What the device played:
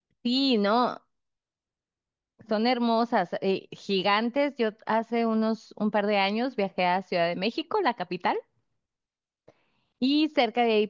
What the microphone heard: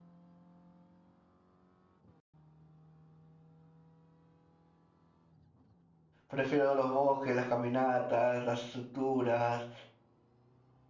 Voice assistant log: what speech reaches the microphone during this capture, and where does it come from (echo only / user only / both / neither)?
user only